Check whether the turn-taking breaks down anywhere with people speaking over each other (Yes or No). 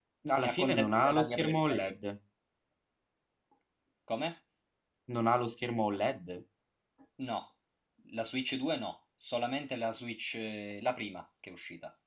Yes